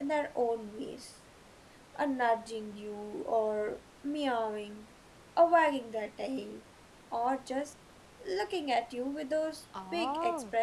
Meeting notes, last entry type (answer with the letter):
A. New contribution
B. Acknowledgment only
A